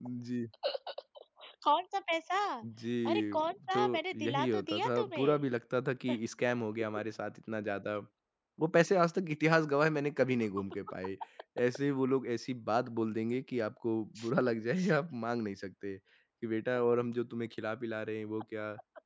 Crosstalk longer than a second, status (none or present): present